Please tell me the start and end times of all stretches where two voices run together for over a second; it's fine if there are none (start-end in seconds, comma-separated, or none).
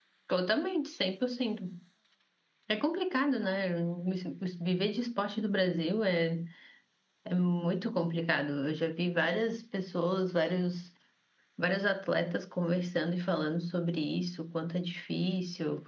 none